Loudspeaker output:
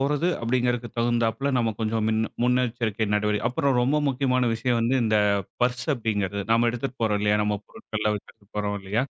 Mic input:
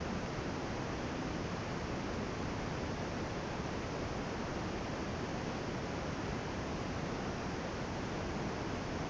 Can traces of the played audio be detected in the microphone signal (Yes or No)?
No